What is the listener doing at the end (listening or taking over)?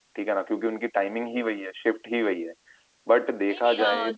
taking over